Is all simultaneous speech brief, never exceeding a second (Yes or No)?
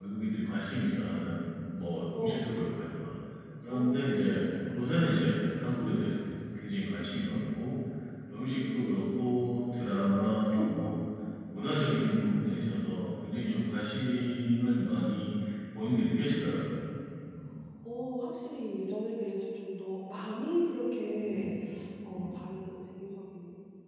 No